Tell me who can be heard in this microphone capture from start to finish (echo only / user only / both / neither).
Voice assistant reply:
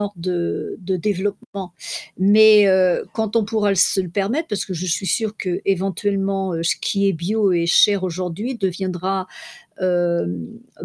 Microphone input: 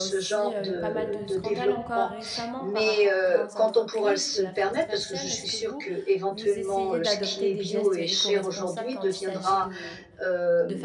both